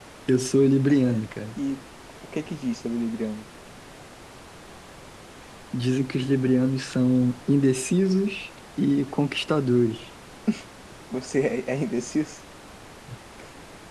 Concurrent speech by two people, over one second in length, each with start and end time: none

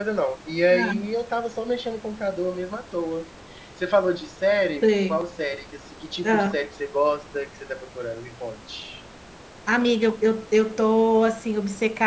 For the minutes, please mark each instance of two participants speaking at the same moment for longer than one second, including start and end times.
none

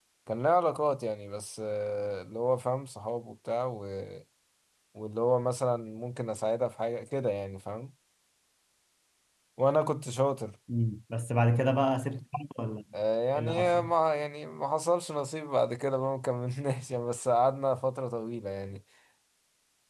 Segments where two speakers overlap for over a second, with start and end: none

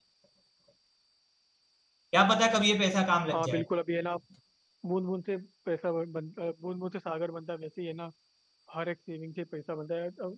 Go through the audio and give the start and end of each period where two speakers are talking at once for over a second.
none

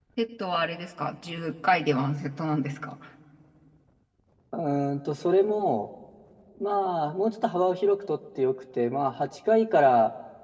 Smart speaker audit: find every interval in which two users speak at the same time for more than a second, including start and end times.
none

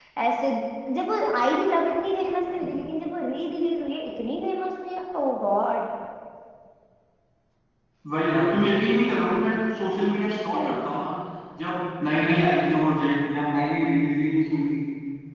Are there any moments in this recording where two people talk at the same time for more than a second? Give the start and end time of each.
none

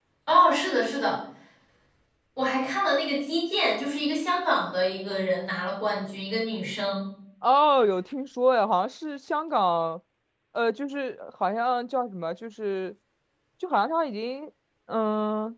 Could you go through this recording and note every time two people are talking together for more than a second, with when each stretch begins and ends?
none

